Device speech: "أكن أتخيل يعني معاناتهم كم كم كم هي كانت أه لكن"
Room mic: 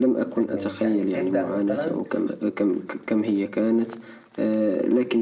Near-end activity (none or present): present